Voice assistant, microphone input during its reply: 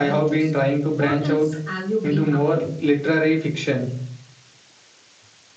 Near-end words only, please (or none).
none